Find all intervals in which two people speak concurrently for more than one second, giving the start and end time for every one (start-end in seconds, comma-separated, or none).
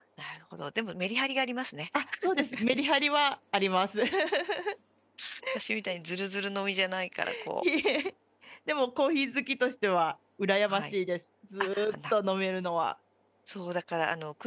none